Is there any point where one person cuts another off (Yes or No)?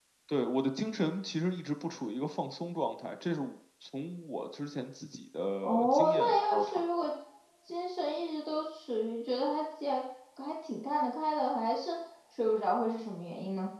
Yes